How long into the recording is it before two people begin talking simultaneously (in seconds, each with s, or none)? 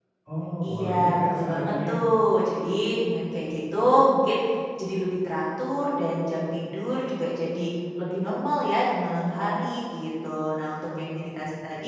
0.6 s